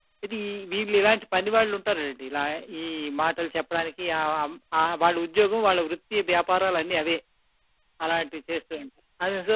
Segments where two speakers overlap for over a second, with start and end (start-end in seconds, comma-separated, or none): none